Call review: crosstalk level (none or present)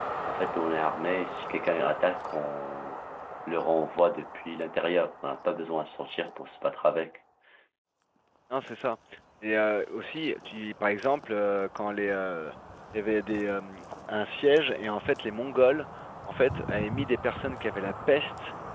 none